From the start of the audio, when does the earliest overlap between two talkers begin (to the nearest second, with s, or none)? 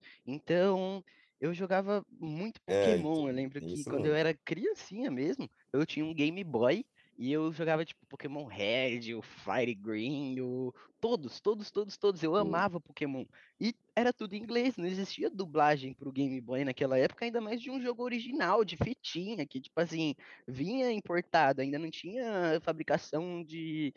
3 s